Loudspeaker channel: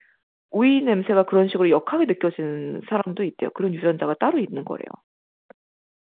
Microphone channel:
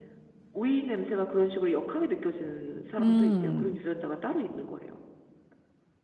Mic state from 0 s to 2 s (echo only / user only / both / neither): echo only